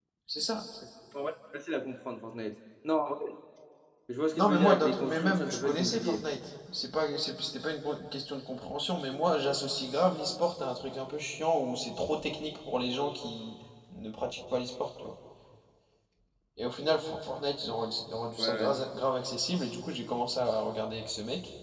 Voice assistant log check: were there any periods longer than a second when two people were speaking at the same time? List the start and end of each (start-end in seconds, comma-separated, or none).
4.3-6.2